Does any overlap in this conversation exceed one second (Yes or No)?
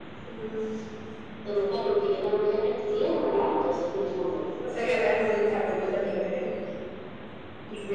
No